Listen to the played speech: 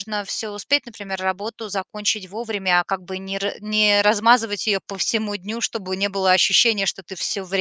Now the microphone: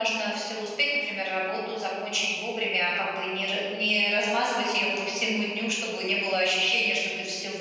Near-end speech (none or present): none